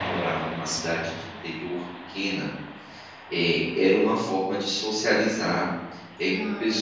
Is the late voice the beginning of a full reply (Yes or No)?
No